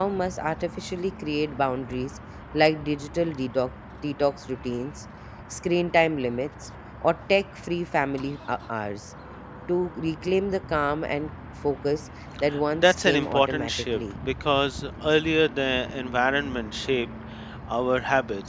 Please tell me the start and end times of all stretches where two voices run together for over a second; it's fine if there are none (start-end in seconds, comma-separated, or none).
12.7-14.0